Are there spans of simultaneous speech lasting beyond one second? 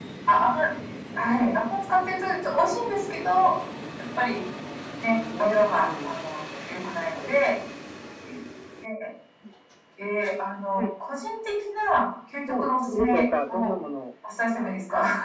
Yes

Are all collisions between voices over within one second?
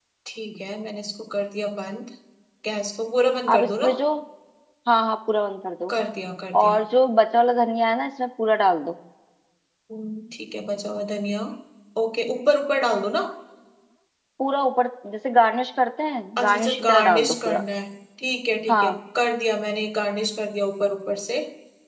No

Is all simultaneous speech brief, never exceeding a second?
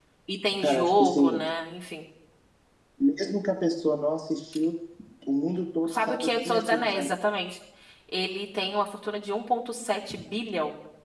No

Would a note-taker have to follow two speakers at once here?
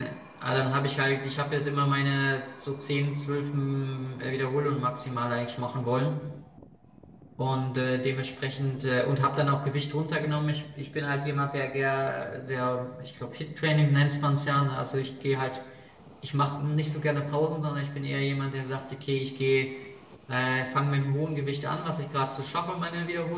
No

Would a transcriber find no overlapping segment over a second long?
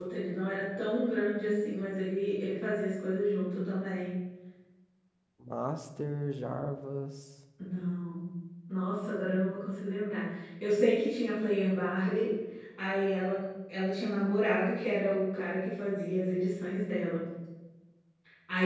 Yes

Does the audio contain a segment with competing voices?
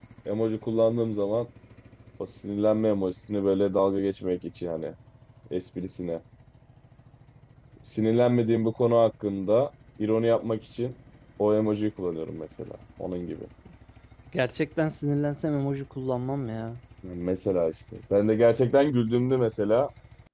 No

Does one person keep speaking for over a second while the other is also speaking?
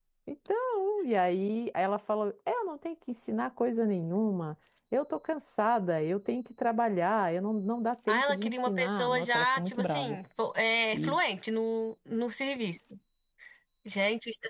Yes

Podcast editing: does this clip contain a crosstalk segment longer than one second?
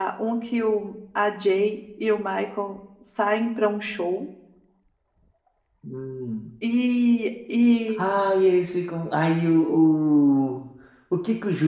No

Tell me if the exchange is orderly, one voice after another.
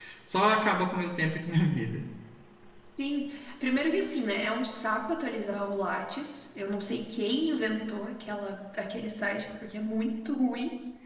Yes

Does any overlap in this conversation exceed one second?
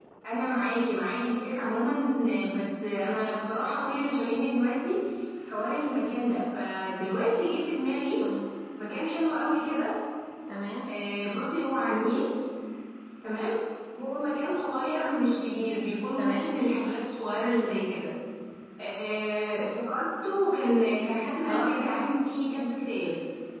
No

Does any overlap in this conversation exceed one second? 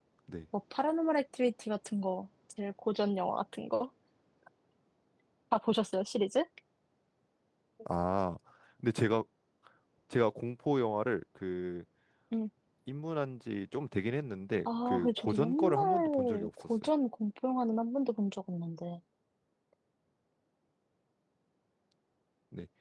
Yes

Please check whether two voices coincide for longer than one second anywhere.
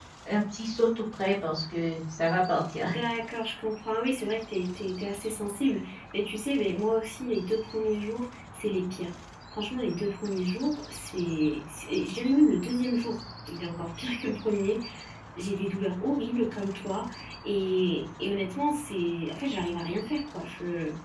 No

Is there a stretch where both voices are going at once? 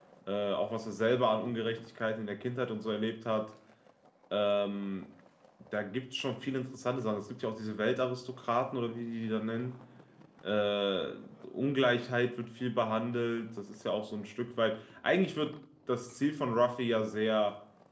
No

